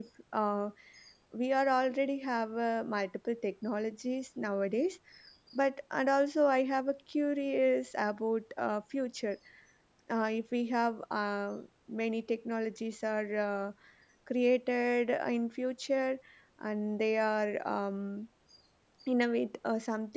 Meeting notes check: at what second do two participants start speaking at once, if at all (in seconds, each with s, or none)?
none